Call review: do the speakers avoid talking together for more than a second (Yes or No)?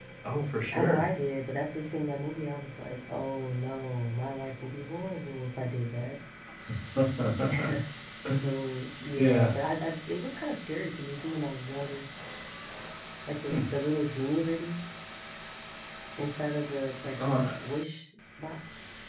Yes